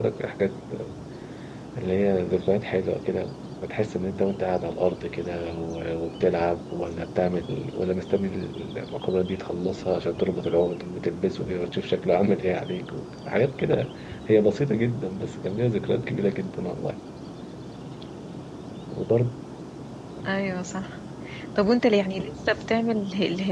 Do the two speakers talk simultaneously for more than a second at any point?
No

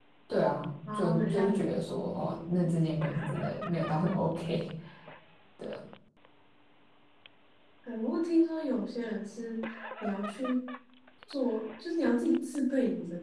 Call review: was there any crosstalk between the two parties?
Yes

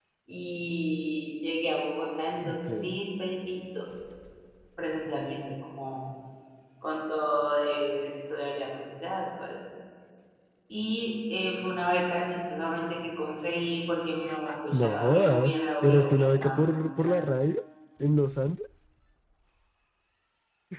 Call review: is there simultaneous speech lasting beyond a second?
Yes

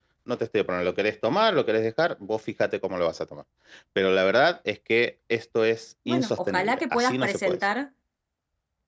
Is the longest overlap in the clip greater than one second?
Yes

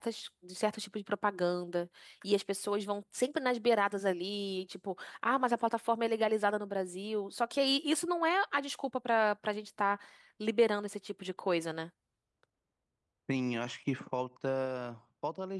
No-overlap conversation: Yes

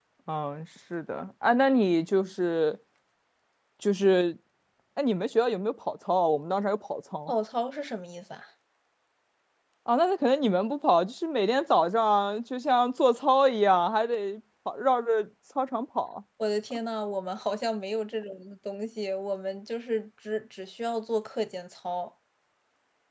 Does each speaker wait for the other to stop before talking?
Yes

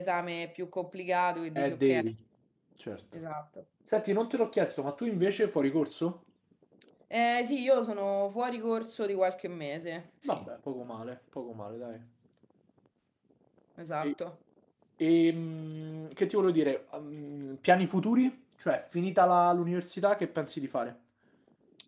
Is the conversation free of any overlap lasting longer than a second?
Yes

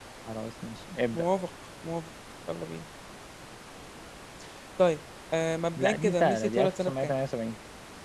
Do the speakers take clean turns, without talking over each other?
No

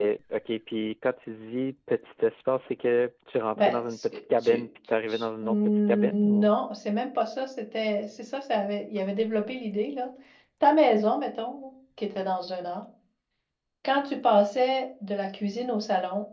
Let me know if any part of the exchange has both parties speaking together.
Yes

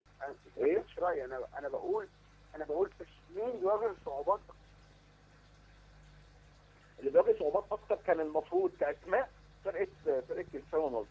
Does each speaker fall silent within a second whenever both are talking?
Yes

